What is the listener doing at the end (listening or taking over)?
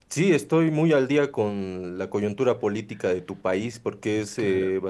listening